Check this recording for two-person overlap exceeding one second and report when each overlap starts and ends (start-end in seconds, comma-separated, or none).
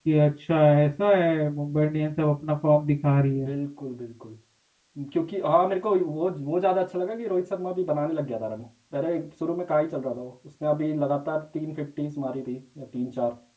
none